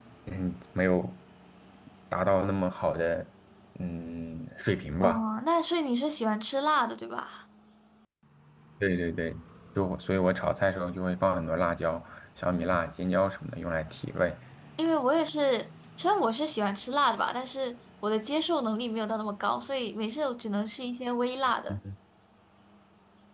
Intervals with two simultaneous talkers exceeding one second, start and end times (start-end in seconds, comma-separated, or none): none